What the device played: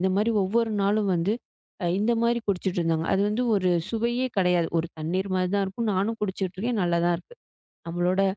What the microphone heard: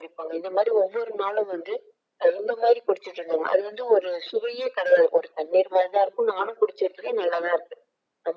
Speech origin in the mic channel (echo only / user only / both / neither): echo only